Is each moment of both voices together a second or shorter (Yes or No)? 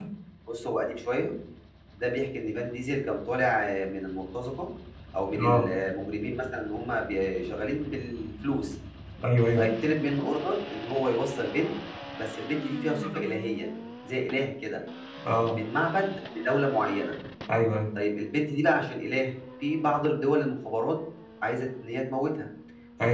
Yes